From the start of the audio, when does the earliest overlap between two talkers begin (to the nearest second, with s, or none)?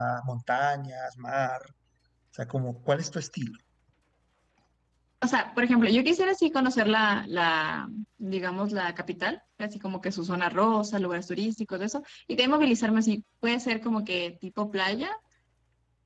none